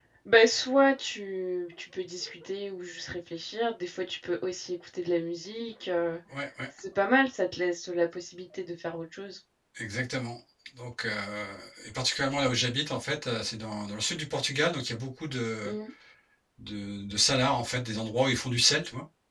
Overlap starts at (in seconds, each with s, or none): none